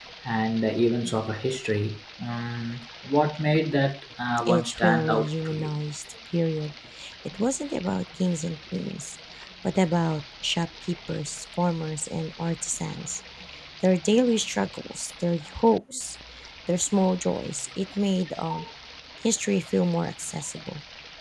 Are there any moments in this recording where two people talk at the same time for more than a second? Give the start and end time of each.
4.5-5.7

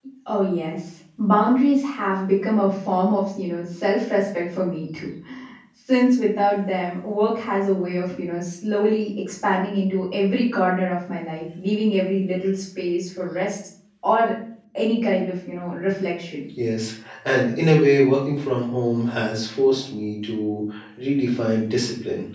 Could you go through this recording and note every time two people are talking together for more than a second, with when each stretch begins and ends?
none

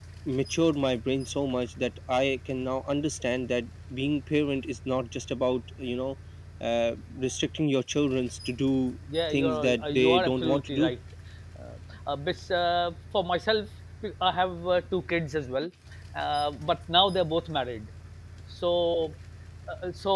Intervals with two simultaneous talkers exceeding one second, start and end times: 9.3-10.9

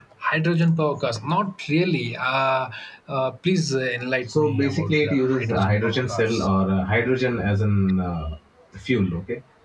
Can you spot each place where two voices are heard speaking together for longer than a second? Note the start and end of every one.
4.3-6.5

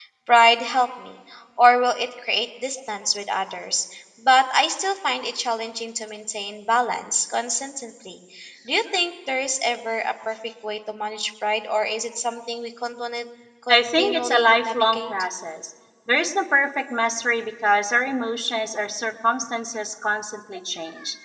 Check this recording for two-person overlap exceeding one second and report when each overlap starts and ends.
13.7-15.1

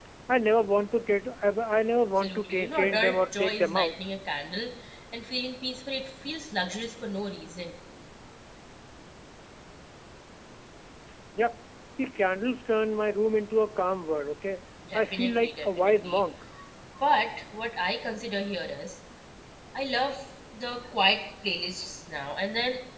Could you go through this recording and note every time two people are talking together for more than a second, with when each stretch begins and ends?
2.2-3.9, 14.9-16.2

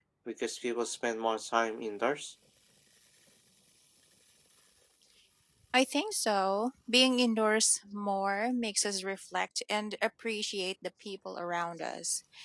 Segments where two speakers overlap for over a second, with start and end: none

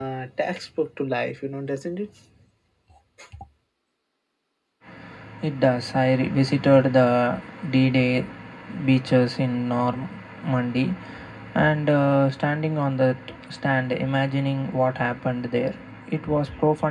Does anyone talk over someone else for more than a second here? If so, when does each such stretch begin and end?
none

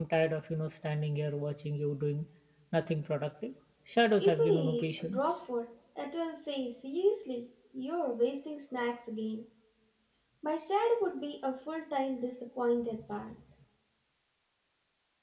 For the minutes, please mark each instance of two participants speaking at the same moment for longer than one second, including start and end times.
4.2-5.4

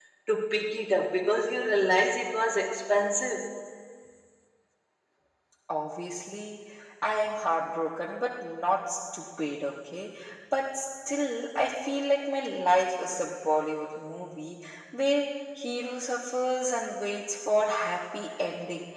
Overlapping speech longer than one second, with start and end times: none

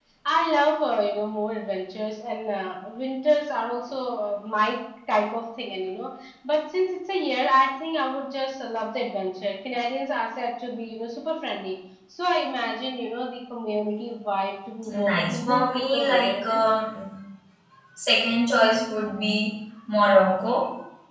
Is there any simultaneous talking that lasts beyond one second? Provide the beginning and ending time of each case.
14.9-16.6

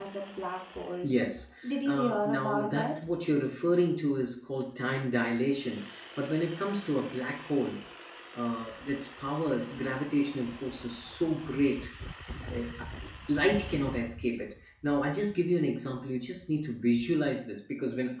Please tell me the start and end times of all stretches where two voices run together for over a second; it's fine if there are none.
1.6-3.0

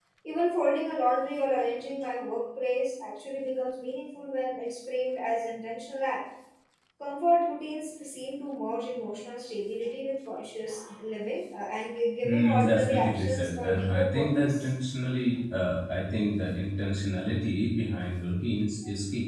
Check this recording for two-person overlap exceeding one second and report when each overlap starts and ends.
12.2-14.7

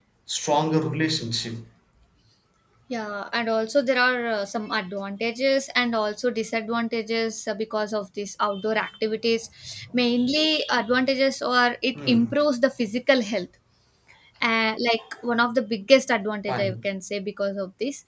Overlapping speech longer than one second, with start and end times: none

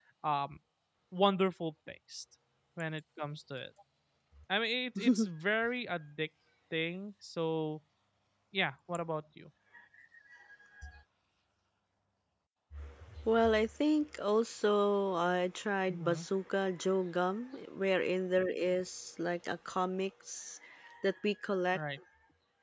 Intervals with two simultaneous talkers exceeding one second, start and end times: none

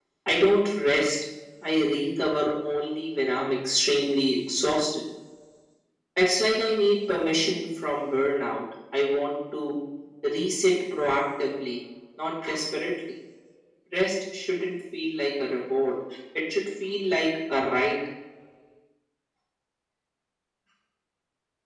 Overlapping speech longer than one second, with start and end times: none

